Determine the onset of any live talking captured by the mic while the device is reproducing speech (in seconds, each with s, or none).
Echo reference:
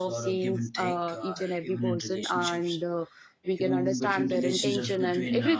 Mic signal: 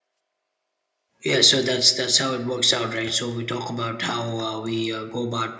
1.2 s